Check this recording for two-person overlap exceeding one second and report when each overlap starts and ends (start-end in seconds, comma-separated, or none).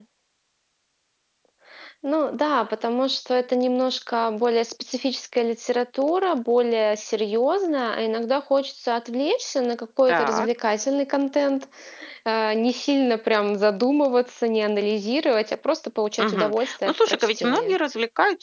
16.2-17.8